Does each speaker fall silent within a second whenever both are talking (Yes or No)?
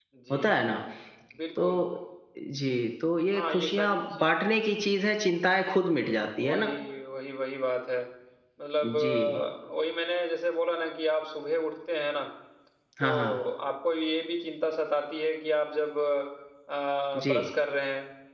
No